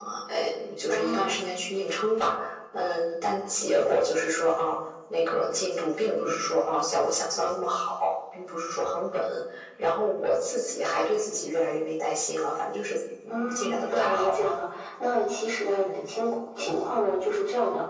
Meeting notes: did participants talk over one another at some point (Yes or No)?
Yes